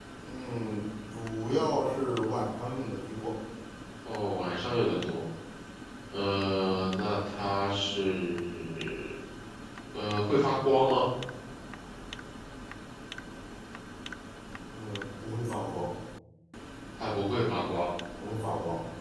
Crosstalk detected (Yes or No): No